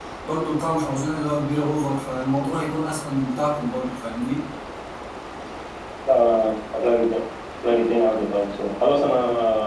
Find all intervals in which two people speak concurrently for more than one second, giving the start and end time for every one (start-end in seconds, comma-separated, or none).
none